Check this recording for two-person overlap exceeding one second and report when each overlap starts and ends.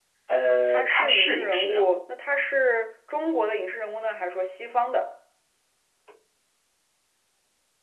0.7-2.0

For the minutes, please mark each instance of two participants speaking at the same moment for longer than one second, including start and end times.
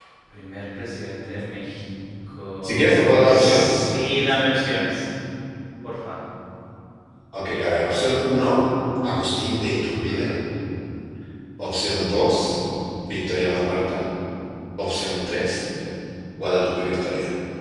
2.6-3.9

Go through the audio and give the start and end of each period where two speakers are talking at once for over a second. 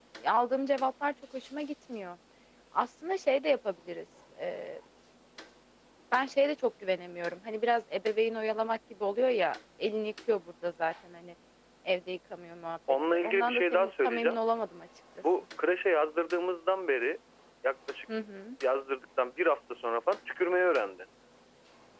13.1-14.4

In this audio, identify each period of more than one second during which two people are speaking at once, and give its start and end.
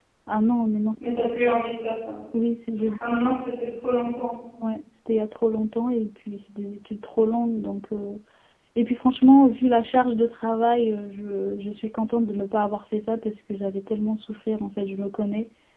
none

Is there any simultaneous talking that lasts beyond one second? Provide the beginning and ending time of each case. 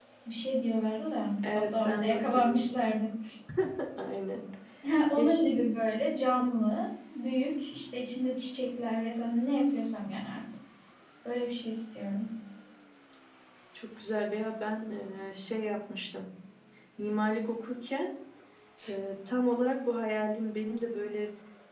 1.5-2.9

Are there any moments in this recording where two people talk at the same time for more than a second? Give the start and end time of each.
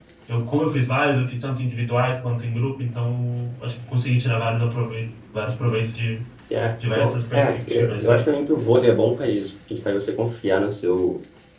7.0-8.3

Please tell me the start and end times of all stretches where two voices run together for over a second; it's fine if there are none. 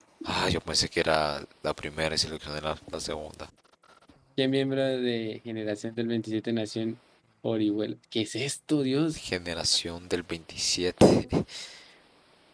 none

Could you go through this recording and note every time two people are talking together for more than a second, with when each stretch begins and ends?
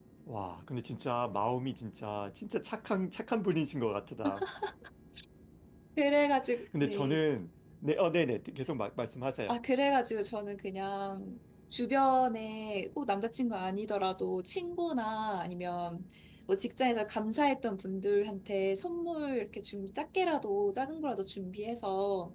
none

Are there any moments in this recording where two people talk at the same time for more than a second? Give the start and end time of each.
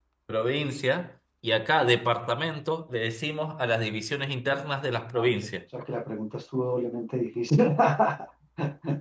none

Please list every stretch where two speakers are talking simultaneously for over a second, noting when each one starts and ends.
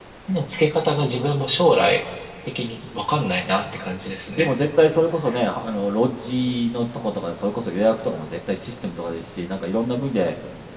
none

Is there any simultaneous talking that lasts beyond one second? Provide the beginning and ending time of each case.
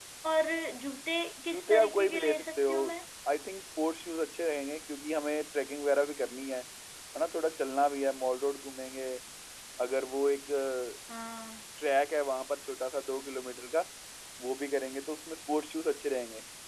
1.5-2.7

